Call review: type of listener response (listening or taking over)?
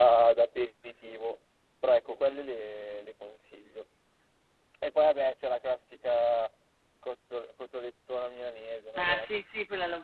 taking over